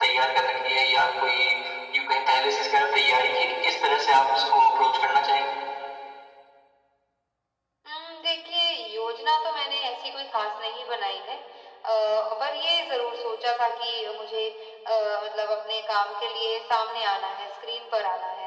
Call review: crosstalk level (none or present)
none